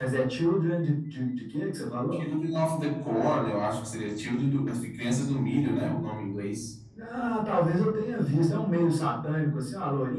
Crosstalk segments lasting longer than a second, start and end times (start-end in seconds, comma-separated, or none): none